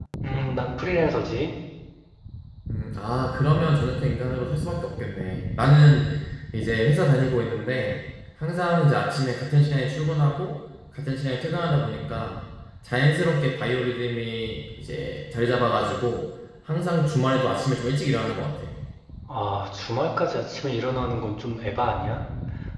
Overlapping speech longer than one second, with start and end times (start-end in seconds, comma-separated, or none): none